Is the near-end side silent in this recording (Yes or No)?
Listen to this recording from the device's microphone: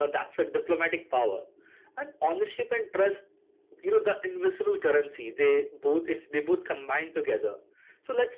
Yes